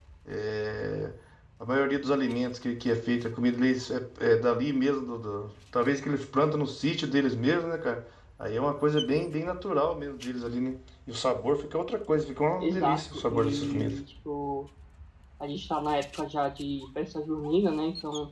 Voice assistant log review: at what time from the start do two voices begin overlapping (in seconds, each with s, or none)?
12.6 s